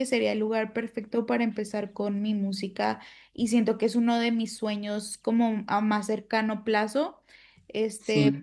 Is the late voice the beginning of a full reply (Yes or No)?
No